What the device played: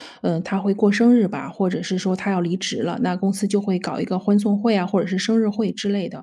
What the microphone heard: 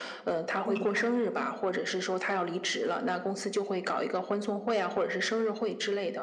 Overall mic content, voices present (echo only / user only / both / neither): both